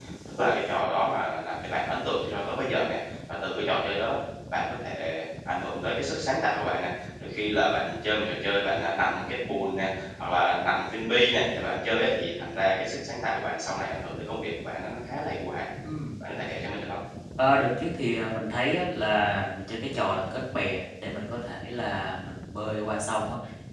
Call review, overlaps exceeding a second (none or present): none